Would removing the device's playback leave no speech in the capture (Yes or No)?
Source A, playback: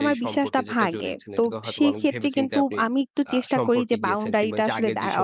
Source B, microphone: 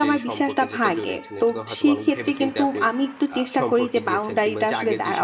Yes